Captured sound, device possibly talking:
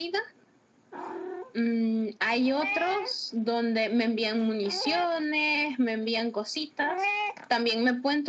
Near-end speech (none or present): none